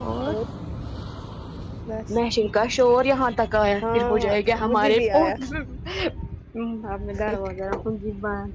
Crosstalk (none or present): present